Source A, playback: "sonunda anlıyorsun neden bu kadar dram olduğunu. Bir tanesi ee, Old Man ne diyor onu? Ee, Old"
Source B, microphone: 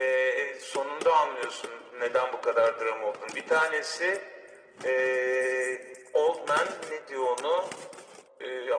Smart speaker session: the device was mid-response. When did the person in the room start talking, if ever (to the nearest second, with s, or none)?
none